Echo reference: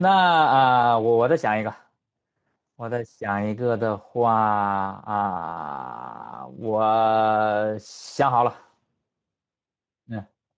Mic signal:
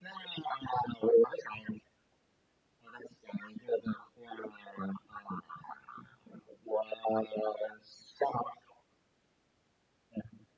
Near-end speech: none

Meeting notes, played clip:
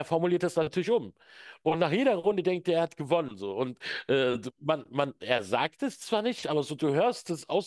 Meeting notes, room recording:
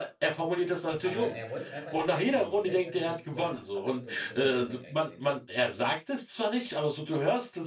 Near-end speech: present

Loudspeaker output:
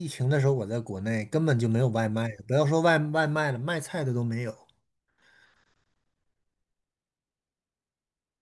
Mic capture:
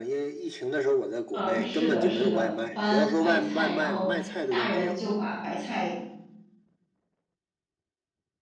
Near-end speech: present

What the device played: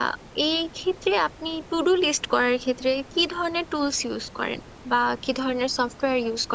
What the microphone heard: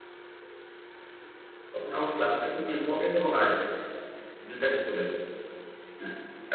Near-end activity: present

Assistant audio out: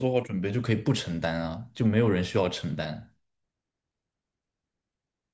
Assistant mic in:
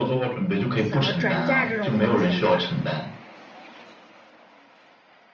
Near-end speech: present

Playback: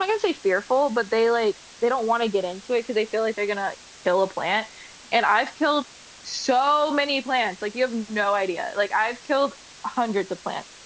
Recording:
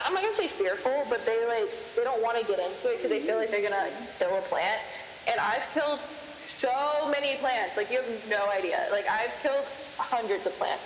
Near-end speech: present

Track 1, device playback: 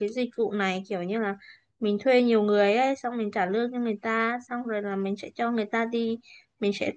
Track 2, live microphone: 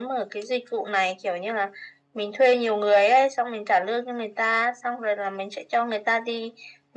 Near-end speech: none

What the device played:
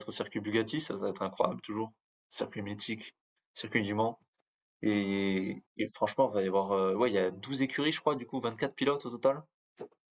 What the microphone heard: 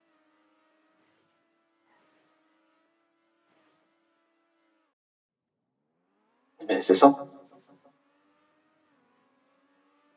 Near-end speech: present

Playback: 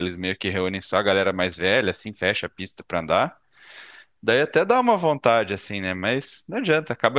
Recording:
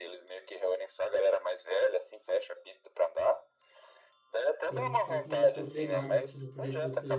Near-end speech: present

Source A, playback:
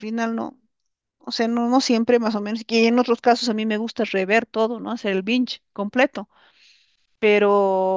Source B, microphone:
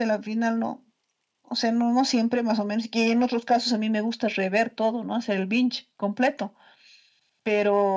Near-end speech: none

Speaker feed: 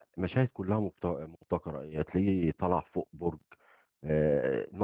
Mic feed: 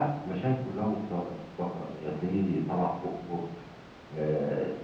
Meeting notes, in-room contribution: none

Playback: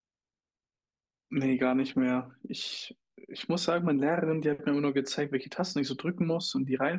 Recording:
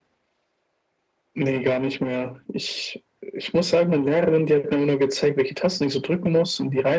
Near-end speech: none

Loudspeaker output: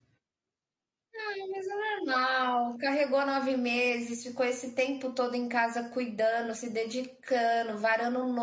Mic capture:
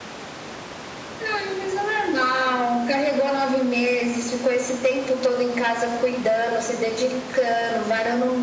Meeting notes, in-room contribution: none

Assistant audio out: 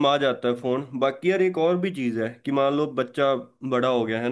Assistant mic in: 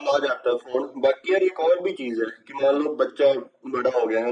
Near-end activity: none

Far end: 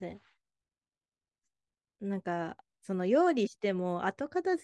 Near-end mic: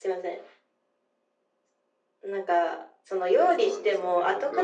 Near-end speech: present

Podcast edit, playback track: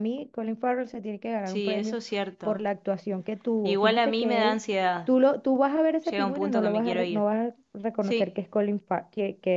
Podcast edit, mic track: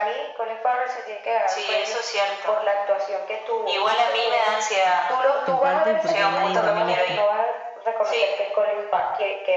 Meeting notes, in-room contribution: present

